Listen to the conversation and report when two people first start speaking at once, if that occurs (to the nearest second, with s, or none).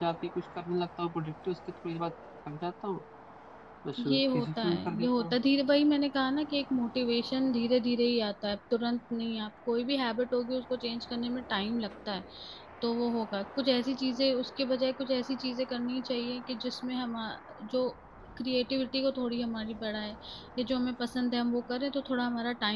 4 s